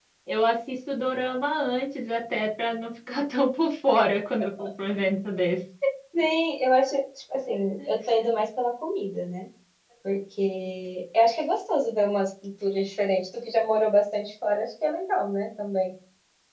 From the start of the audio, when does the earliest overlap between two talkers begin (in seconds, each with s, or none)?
none